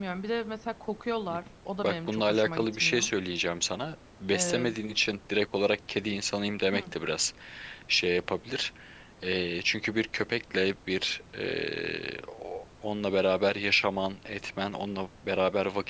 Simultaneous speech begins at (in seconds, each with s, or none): 1.8 s